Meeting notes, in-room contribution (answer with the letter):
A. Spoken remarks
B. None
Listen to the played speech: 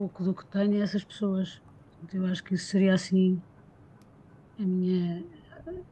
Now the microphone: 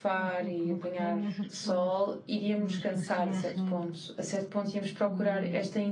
A